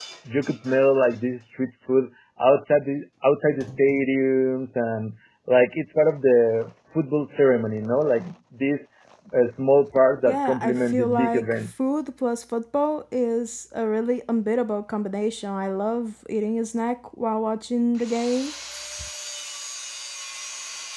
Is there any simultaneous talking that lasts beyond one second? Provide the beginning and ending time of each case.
10.3-11.6

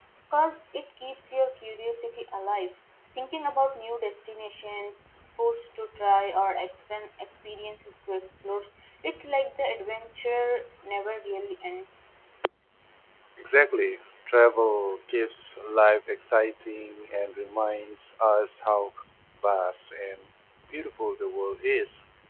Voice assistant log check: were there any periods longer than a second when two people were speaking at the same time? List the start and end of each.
none

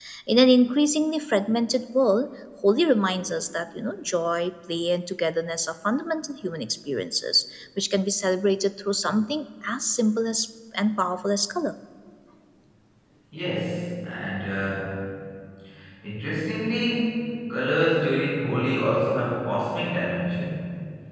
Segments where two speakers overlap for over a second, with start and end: none

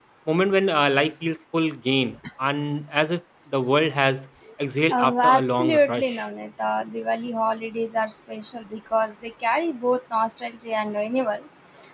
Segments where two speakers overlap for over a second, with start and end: 4.9-6.2

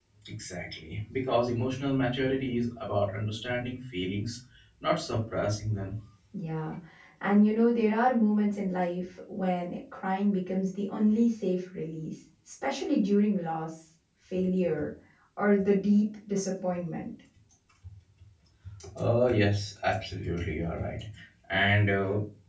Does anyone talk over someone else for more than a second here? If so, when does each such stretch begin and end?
none

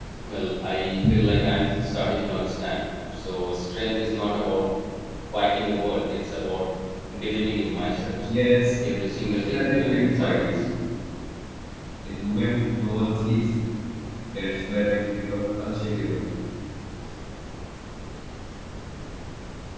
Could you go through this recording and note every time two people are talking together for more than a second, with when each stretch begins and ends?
9.4-10.6

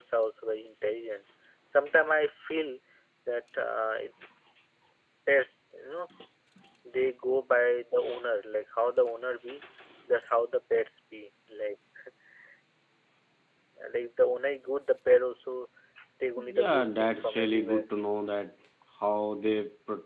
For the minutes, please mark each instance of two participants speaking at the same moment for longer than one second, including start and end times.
16.6-17.8

